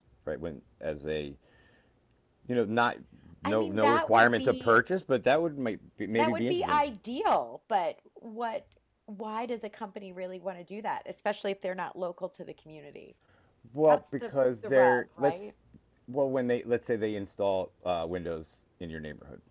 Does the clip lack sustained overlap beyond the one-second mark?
No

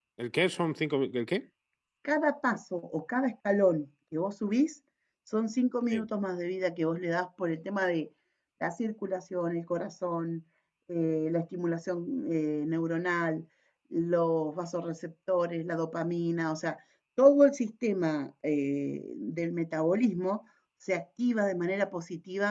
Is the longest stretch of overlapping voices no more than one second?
Yes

